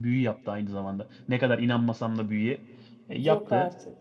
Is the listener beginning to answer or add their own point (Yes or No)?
No